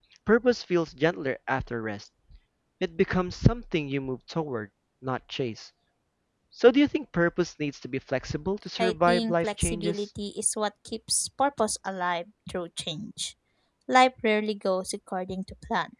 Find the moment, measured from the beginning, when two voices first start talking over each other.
9 s

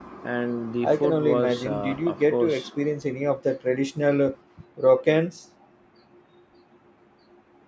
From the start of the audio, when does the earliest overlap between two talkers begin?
1 s

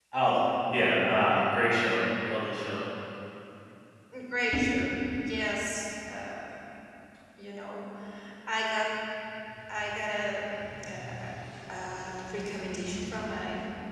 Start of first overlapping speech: none

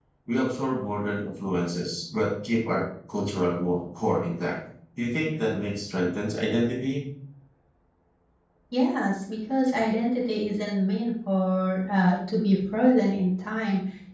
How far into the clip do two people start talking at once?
none

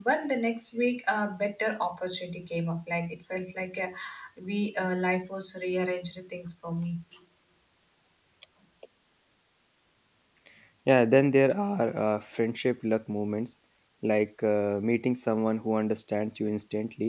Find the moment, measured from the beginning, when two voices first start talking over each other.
none

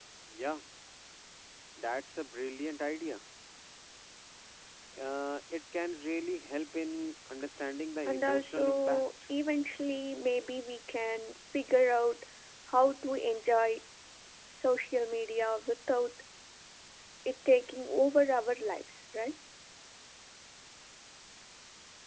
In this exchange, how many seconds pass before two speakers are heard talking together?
8 s

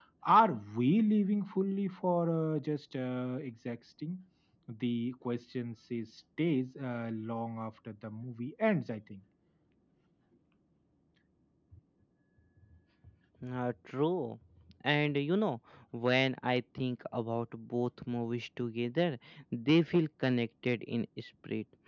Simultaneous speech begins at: none

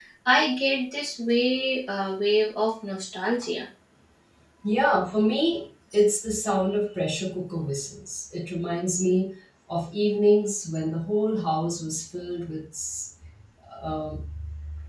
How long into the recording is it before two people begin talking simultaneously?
none

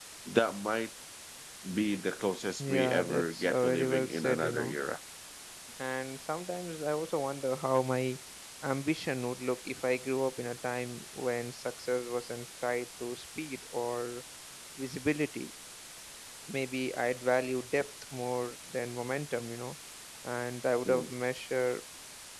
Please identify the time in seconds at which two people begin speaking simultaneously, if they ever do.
3 s

